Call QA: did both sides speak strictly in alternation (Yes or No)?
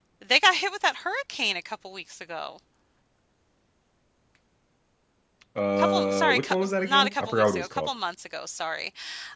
No